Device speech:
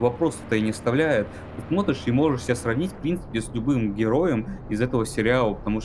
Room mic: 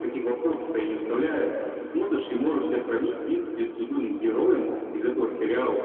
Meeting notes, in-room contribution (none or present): none